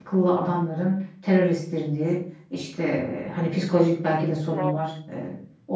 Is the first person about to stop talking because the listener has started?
No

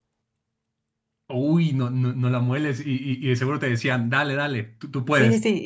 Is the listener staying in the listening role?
No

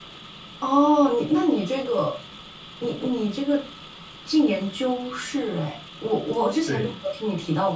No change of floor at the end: Yes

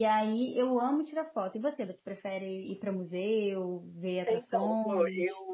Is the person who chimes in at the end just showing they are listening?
No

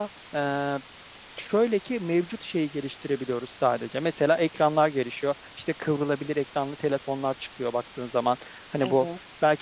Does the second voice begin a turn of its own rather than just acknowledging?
No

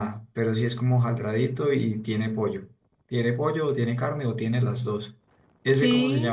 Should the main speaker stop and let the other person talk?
Yes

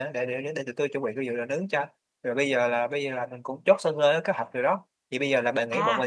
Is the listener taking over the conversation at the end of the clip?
Yes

